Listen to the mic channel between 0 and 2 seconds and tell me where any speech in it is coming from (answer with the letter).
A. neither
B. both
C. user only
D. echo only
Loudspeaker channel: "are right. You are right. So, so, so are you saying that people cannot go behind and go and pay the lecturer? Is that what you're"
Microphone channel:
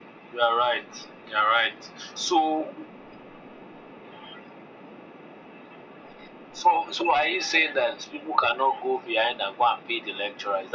D